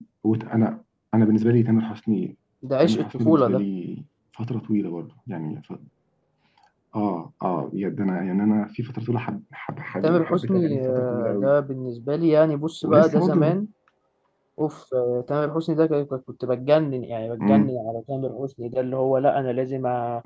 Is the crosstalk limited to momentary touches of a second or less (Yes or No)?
No